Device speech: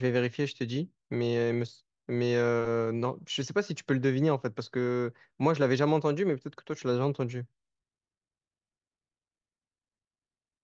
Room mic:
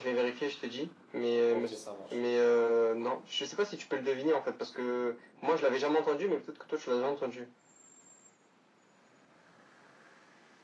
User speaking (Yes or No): Yes